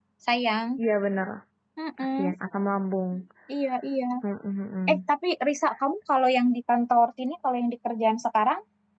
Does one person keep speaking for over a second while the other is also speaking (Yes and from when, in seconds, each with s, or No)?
No